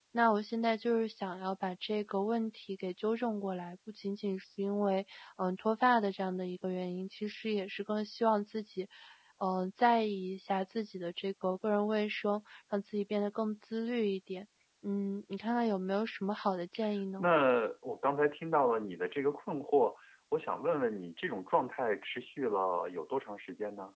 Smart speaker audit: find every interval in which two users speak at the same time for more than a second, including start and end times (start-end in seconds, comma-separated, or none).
none